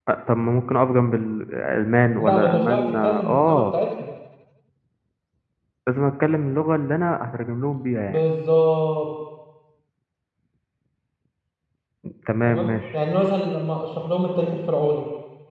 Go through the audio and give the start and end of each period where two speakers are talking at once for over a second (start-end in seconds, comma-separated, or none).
2.2-3.6